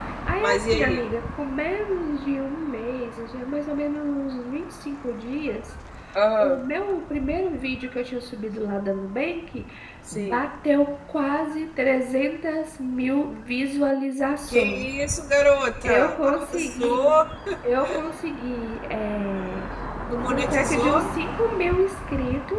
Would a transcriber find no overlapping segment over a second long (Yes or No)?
No